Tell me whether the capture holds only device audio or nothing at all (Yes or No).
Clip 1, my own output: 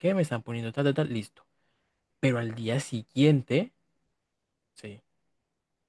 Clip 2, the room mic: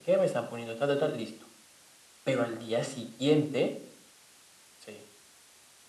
Yes